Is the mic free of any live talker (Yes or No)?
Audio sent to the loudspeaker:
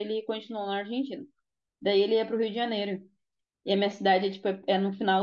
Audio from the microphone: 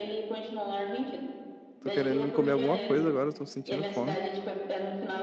No